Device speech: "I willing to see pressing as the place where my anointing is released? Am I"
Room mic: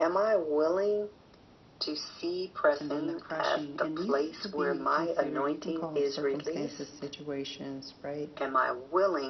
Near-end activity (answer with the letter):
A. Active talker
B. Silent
A